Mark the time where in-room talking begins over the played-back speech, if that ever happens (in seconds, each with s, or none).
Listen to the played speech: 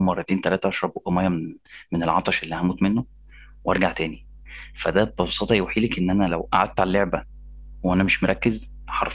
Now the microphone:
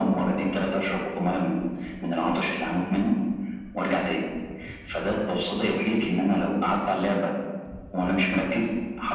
none